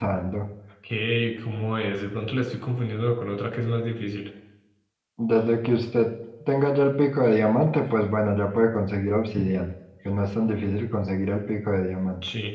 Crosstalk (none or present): none